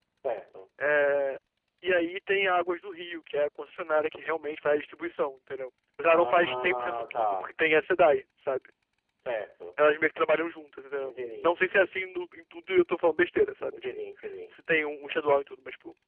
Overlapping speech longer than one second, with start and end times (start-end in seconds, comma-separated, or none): 6.1-7.3